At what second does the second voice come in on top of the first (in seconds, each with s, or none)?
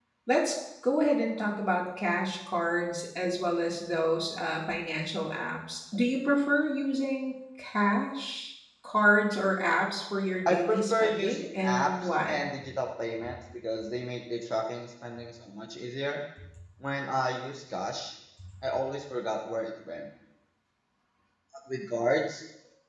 10.5 s